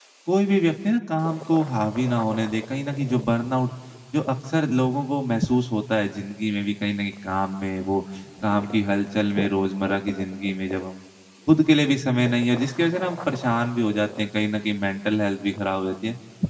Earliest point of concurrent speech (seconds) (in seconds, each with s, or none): none